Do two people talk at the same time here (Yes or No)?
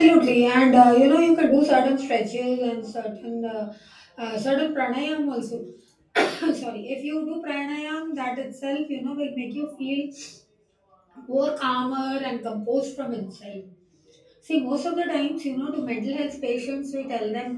No